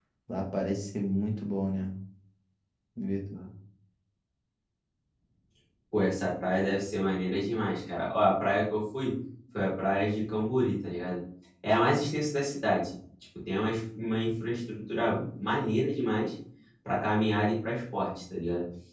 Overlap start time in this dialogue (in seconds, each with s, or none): none